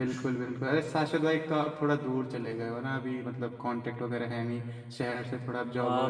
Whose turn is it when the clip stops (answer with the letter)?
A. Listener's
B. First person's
A